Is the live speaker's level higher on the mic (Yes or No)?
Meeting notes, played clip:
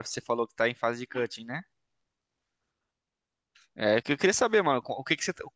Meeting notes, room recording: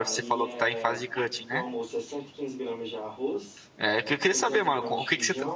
No